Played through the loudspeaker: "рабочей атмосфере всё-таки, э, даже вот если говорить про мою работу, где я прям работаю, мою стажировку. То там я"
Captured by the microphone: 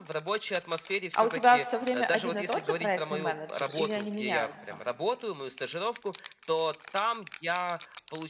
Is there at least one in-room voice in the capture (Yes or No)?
Yes